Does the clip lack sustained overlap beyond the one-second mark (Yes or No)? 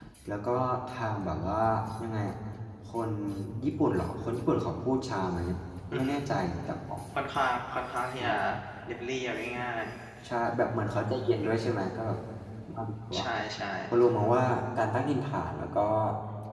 Yes